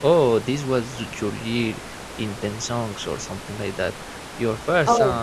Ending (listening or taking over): taking over